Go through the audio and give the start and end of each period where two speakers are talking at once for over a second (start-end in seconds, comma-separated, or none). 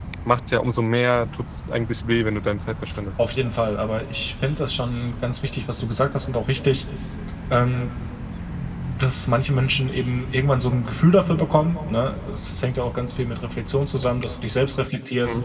none